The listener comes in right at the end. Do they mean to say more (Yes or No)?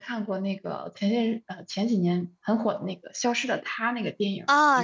Yes